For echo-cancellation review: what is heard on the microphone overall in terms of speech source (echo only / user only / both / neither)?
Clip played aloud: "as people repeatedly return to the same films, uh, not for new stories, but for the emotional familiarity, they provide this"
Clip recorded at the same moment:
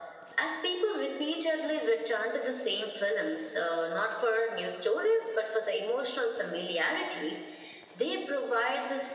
echo only